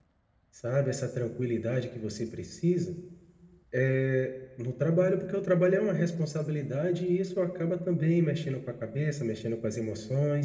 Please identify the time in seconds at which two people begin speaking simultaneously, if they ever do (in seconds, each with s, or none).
none